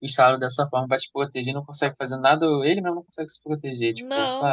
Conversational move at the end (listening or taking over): taking over